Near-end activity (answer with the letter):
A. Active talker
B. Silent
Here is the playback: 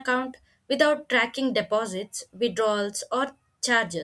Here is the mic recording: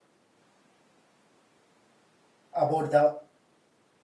A